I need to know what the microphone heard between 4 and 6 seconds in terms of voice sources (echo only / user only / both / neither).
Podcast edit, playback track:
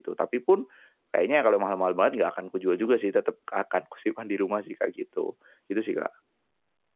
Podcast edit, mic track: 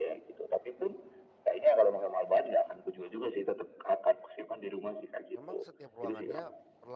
both